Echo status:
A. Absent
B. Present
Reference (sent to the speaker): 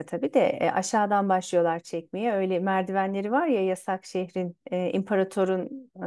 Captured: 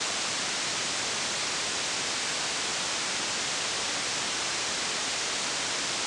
A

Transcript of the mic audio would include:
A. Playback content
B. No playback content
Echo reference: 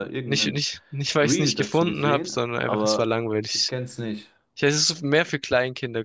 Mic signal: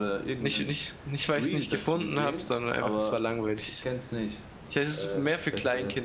A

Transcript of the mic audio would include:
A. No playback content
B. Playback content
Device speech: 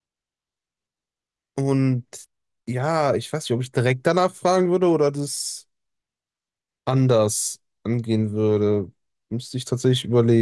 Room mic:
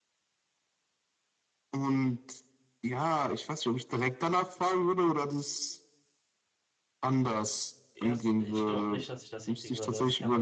B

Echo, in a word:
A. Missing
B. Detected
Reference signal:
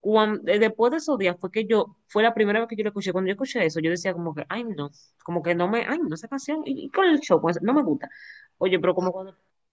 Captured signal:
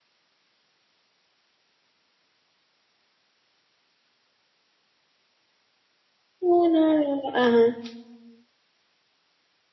A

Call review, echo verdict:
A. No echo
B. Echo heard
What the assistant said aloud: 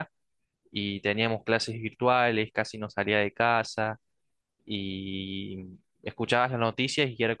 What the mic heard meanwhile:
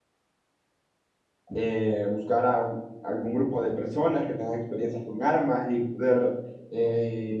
A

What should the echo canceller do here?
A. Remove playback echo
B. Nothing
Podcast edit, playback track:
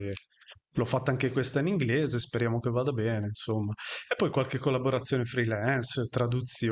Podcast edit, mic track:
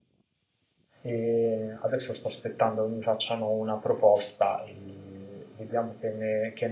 B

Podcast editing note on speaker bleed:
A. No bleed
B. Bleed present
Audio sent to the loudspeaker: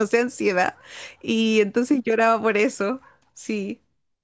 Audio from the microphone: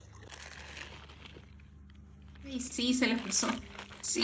A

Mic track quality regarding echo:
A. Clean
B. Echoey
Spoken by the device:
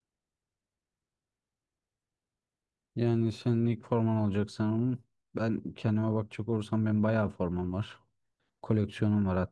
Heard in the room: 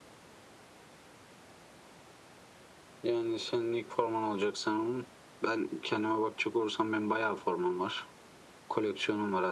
B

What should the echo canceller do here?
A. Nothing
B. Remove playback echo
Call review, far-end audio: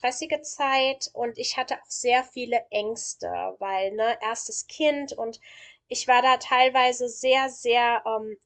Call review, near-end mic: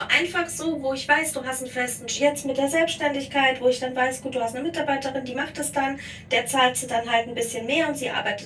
A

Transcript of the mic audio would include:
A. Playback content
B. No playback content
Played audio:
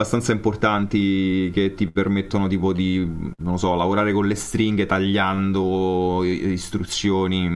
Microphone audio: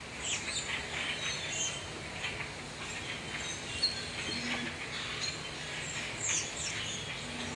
B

